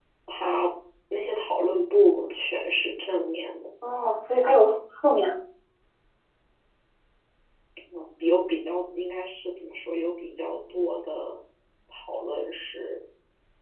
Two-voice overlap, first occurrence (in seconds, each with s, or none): none